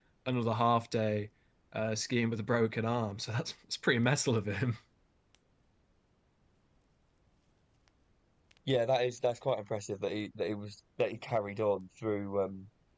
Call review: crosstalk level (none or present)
none